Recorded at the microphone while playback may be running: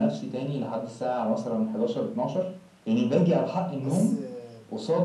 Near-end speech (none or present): present